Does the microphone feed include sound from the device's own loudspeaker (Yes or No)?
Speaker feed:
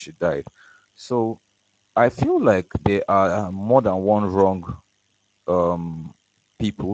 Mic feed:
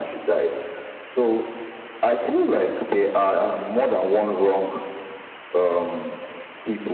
Yes